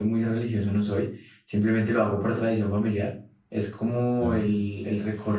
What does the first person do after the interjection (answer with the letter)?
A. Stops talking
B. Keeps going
B